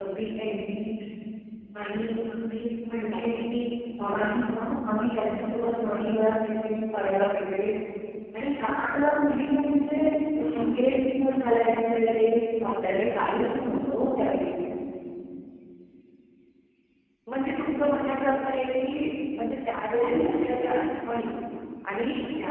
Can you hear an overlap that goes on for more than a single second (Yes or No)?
No